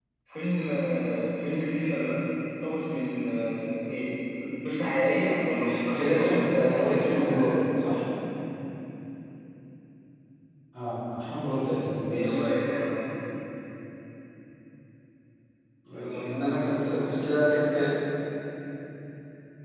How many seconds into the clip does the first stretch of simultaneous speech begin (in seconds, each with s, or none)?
5.9 s